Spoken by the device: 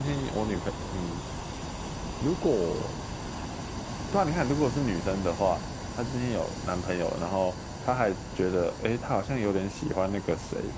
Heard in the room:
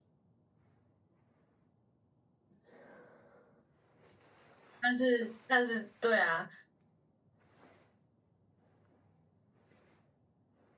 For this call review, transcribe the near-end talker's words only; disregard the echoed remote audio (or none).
但是但是对啊，